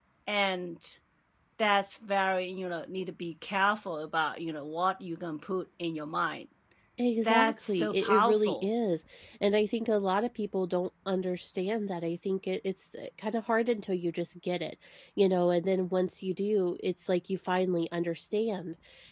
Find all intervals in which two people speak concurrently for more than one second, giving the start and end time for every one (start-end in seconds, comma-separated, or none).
7.2-8.7